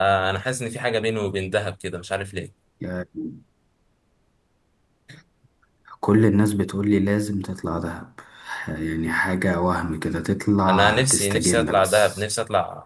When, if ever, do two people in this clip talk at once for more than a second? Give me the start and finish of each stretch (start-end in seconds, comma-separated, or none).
10.7-12.2